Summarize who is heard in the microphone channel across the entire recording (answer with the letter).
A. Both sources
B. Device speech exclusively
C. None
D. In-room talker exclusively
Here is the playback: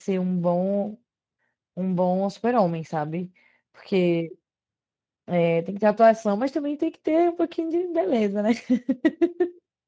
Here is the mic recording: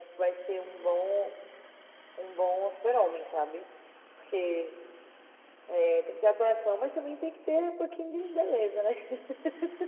B